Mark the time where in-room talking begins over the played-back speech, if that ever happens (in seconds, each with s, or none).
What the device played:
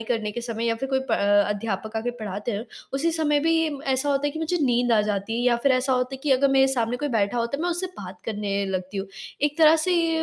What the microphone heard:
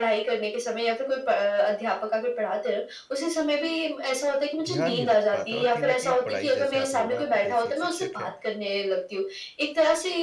4.6 s